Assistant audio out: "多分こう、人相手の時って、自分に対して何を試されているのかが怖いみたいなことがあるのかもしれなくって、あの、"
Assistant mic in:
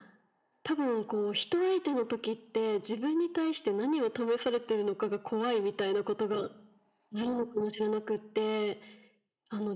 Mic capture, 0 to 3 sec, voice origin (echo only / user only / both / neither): echo only